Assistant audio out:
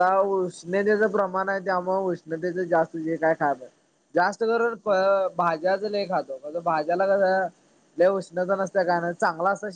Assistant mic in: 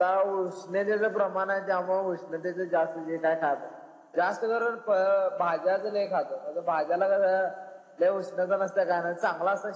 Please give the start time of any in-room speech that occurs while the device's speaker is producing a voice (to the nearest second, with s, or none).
none